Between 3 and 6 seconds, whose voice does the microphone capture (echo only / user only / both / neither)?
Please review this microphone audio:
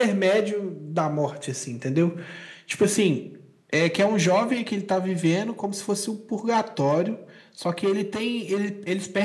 echo only